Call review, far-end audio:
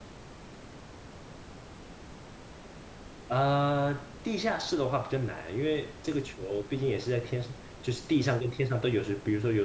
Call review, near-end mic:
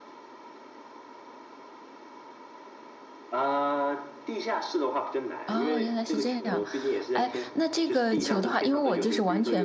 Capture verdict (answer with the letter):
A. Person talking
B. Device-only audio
A